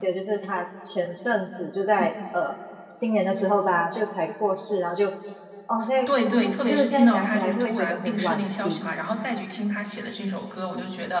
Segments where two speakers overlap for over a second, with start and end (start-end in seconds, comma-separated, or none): 6.7-8.8